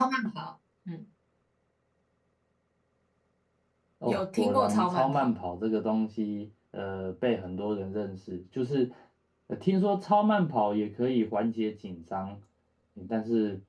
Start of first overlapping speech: 4.1 s

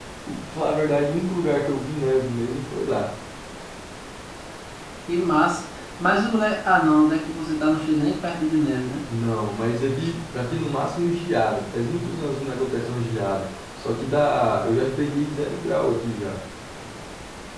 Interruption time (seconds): none

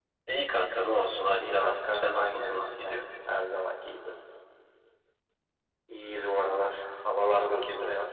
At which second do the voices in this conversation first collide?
1.3 s

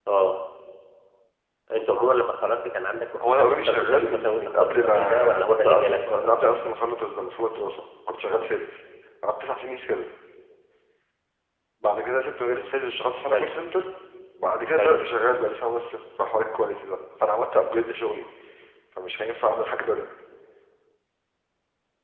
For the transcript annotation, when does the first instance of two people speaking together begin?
3.2 s

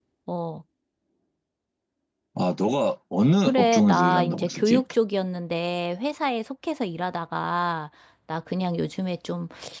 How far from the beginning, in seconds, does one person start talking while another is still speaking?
3.4 s

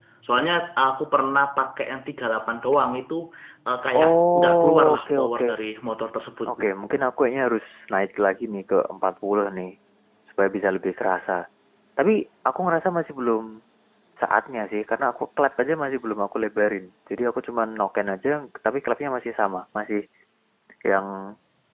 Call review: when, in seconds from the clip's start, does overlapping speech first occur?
4.0 s

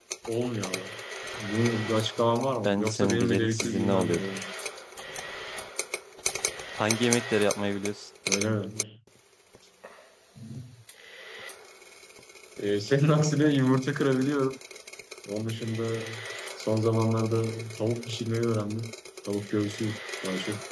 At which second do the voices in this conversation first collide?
2.6 s

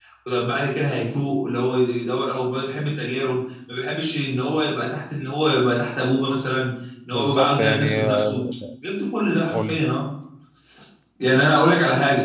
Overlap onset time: 7.1 s

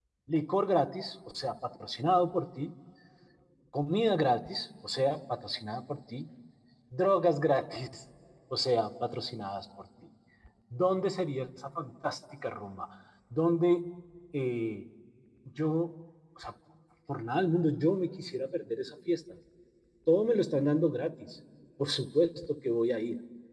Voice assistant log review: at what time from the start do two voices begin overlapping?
none

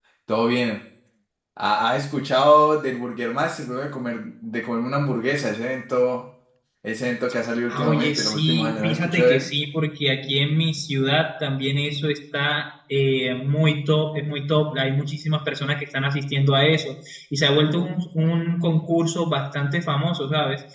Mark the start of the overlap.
7.7 s

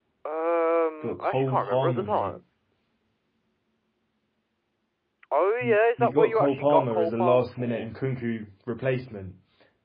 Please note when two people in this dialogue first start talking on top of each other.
1.0 s

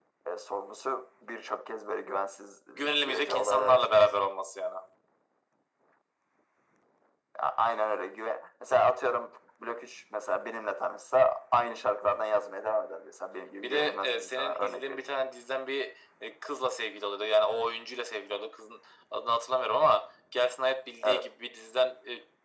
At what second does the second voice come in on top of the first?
2.7 s

